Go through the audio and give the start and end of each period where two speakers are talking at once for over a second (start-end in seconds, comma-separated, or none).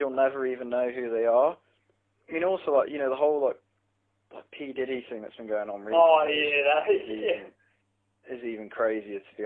5.9-7.5